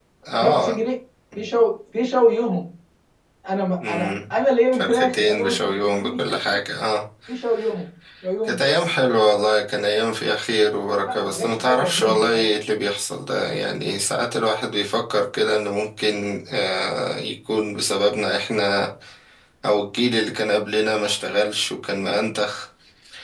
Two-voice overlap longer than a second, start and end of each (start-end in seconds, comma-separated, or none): 4.7-6.2, 11.0-12.4